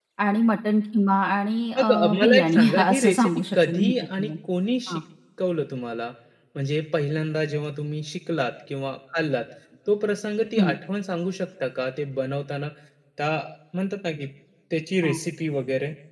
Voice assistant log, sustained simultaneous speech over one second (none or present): present